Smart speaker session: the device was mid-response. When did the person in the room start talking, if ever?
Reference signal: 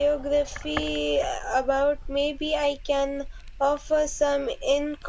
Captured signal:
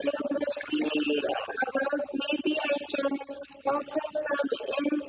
none

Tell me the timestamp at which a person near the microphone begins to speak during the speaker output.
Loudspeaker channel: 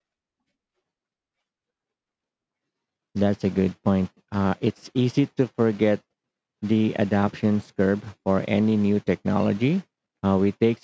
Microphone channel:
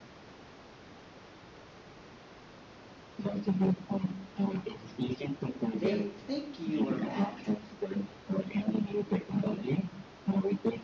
5.7 s

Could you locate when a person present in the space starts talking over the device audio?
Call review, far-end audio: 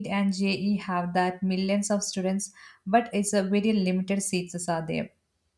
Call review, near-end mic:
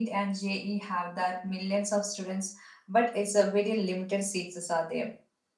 none

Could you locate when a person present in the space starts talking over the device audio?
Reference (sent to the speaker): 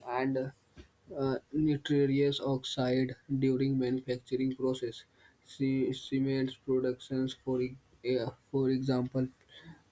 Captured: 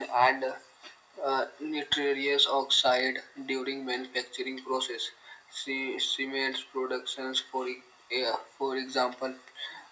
none

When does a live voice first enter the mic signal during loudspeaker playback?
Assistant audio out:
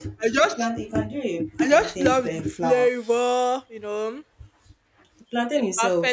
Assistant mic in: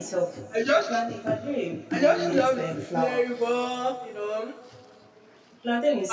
1.9 s

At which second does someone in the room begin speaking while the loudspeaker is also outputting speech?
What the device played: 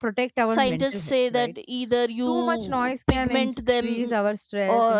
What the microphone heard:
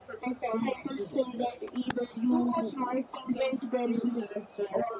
none

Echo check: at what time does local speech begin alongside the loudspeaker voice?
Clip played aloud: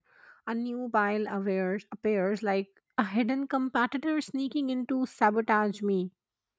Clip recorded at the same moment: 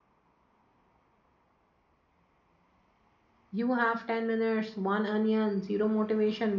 3.5 s

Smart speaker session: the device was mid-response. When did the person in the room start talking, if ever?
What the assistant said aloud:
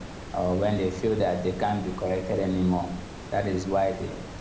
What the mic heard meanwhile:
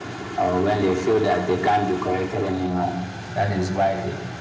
none

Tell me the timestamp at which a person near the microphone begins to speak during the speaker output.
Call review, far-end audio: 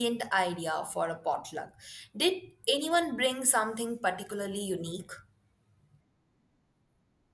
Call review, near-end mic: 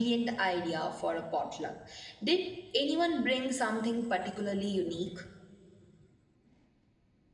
none

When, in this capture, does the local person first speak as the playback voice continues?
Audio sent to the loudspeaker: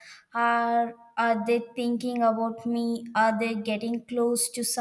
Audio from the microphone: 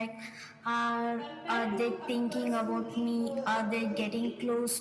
1.1 s

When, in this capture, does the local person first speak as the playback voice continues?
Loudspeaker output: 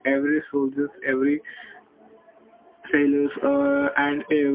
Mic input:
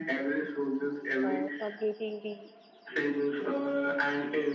1.2 s

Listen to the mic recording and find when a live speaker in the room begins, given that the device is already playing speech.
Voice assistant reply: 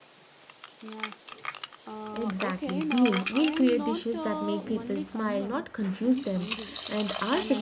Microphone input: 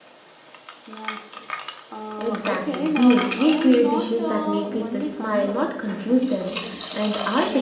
none

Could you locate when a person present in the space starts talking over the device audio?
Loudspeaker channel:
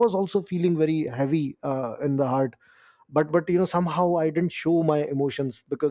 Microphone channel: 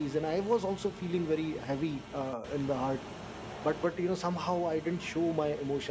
none

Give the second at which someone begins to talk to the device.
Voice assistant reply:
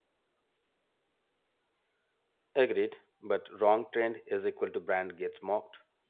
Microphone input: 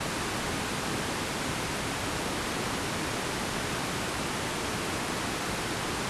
none

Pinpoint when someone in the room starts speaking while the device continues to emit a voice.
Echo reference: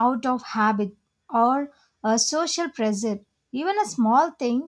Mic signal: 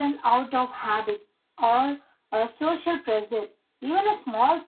none

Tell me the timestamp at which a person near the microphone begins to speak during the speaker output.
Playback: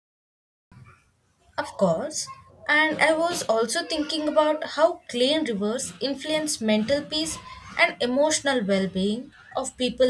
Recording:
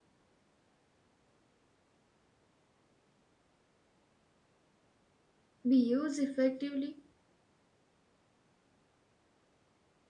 5.7 s

